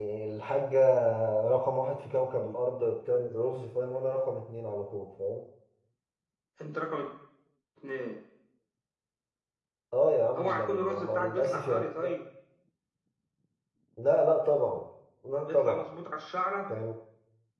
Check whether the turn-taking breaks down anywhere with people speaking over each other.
Yes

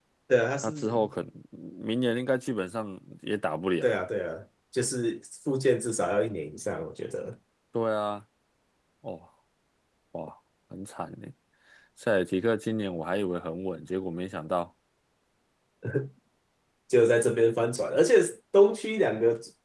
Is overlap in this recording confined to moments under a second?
Yes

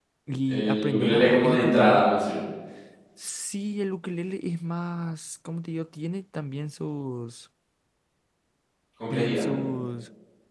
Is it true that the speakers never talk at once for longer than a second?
No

